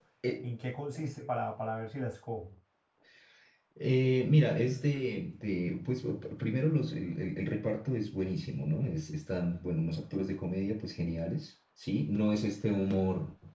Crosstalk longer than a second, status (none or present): none